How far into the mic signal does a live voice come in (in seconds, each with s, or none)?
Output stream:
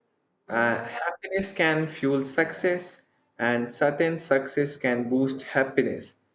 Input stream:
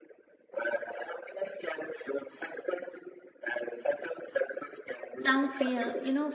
5.2 s